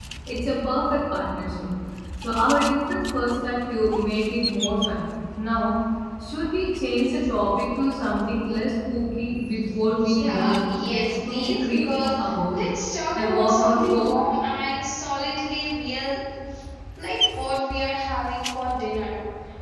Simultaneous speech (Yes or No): Yes